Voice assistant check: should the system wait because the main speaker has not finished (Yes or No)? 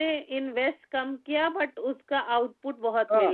No